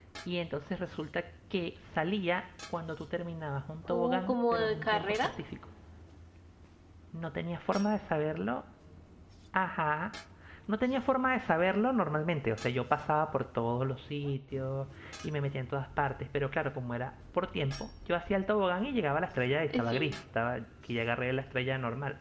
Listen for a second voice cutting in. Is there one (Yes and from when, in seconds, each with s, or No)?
Yes, from 3.9 s